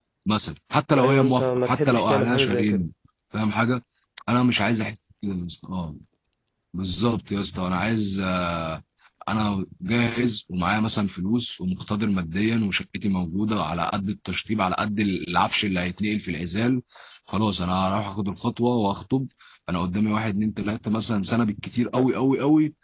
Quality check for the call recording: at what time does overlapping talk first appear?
1.0 s

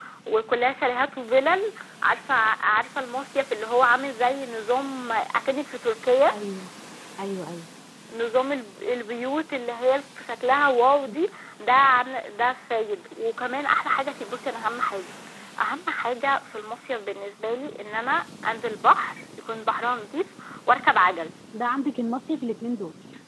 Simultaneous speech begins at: none

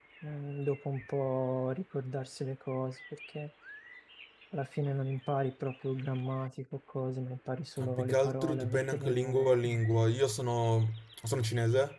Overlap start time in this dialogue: 7.8 s

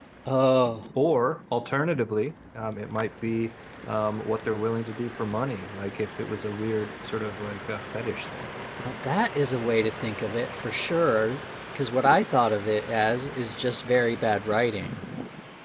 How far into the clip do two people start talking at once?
none

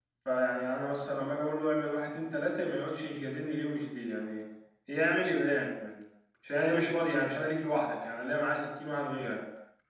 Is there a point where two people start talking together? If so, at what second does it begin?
none

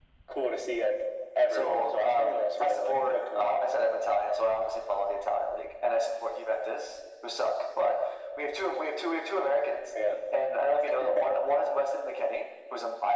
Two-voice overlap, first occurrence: 1.5 s

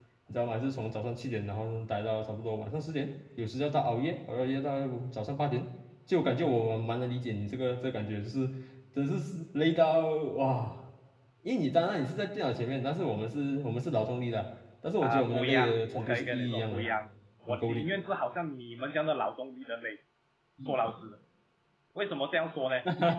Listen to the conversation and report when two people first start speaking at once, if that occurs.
15.0 s

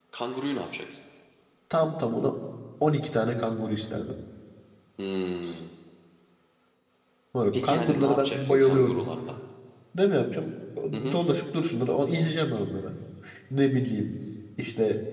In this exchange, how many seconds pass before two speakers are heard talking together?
7.5 s

